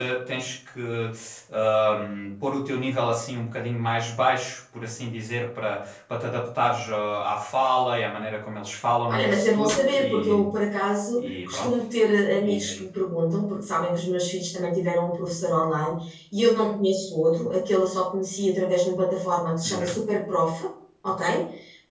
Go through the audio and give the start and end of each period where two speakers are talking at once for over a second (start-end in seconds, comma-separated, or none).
9.1-10.5